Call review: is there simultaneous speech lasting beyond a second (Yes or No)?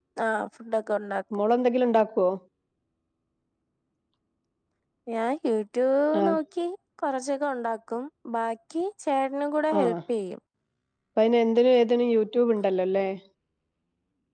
No